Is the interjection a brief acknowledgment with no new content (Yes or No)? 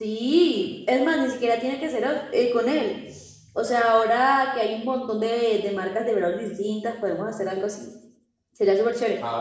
Yes